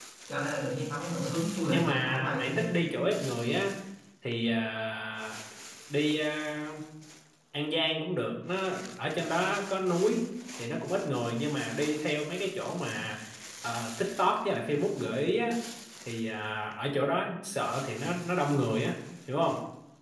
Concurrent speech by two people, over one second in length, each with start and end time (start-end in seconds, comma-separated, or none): 1.6-2.9